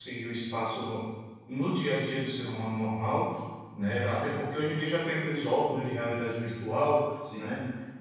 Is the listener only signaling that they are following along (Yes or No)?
Yes